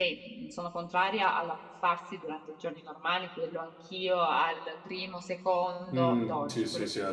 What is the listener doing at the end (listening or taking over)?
taking over